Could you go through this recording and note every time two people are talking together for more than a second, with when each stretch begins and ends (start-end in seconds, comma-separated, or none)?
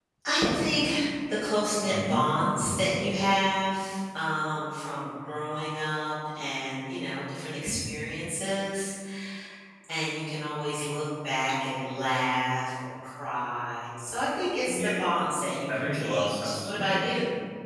15.7-17.1